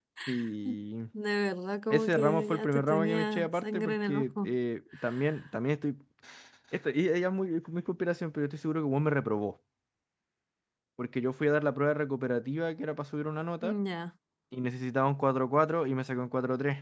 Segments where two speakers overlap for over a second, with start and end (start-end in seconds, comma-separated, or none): 1.9-4.5